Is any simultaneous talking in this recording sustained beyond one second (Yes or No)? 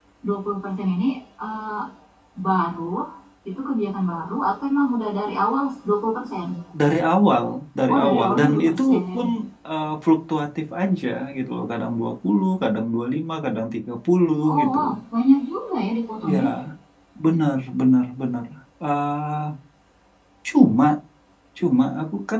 Yes